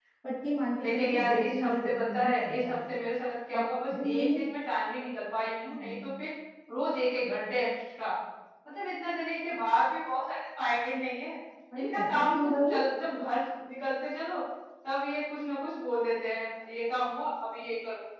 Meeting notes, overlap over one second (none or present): present